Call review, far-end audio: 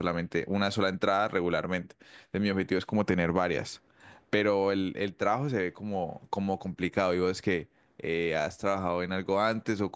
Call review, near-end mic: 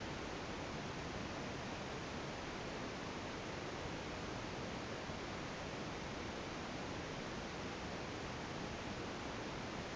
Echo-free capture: Yes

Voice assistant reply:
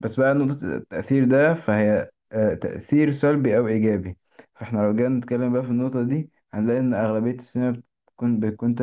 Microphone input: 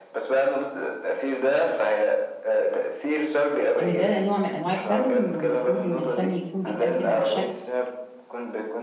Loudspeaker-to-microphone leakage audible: Yes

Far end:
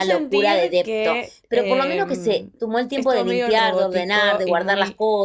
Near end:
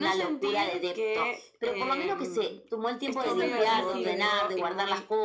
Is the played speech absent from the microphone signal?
No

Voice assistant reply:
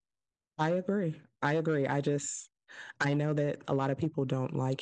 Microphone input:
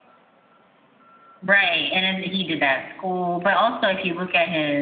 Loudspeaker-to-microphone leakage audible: No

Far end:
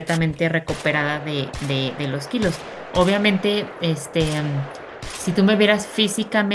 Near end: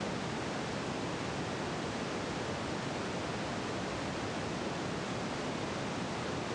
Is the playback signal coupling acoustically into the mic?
No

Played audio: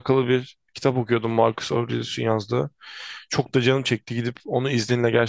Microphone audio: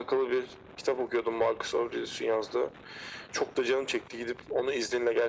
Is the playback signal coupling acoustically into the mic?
Yes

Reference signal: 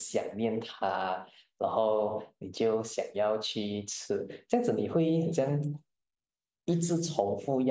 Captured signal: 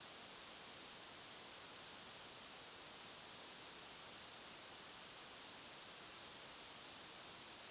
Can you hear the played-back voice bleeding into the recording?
No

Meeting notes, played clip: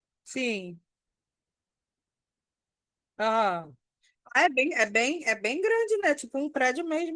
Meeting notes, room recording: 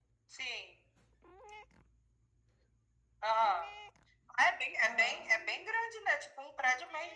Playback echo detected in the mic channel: Yes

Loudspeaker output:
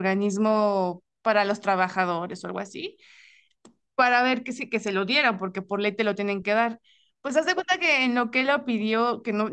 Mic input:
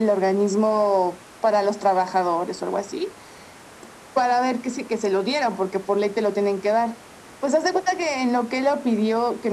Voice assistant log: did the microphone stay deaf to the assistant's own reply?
No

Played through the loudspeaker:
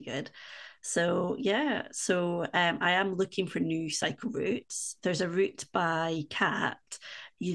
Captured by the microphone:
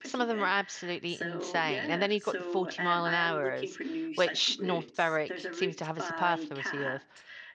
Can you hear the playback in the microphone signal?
Yes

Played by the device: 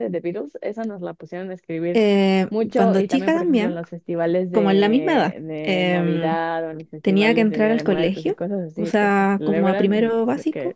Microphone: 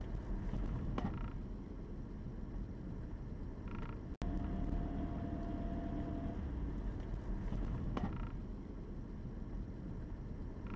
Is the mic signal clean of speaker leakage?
Yes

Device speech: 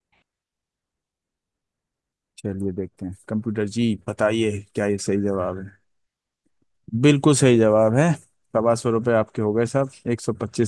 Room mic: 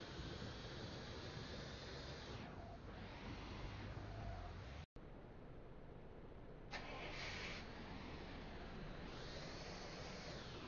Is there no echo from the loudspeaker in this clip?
Yes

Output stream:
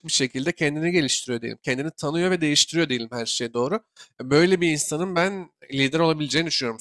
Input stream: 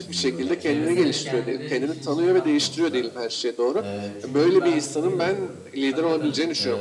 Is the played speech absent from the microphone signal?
No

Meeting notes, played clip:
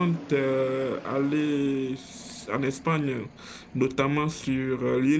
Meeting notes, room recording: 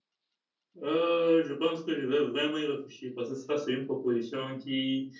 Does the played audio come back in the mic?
No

